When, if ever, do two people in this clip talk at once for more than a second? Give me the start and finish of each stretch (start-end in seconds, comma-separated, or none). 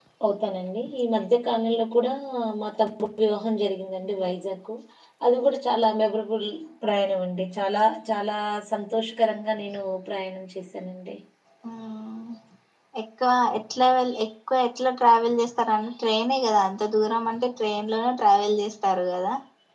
none